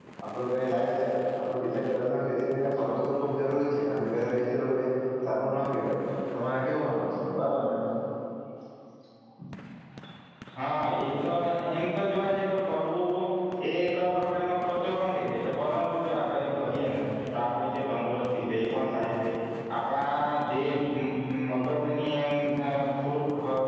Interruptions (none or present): none